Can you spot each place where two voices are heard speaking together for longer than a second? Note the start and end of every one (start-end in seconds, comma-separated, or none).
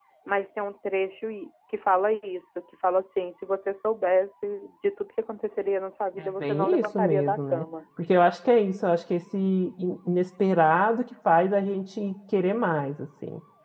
6.2-7.6